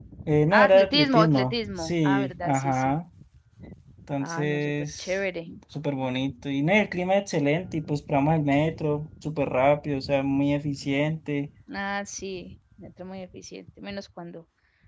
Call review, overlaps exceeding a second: present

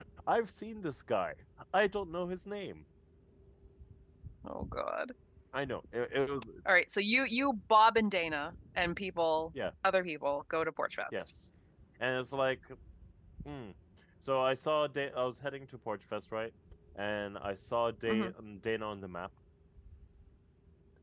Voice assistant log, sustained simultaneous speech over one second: none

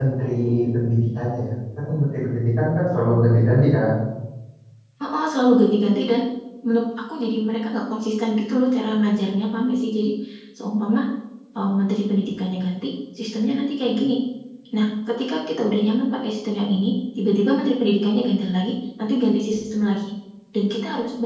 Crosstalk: none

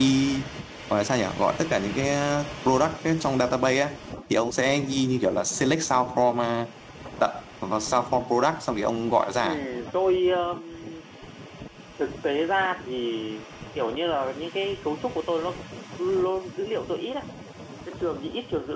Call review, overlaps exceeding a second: none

